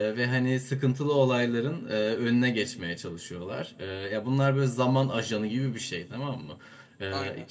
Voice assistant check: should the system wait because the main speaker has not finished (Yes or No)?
Yes